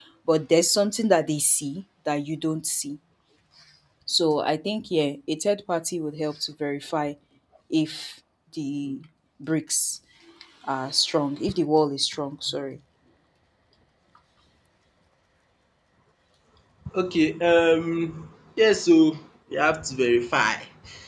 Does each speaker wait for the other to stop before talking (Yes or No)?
Yes